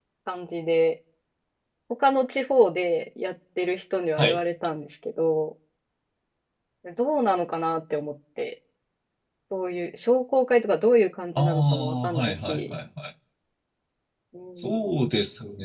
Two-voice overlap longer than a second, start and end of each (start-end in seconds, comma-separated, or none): 11.3-12.7